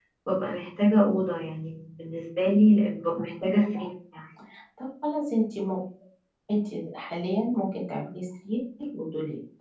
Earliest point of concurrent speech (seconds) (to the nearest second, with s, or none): none